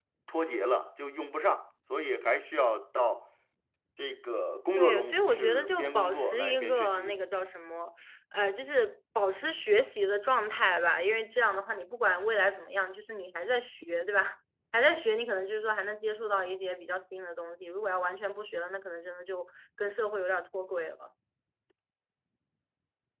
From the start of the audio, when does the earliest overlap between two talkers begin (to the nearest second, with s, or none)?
5 s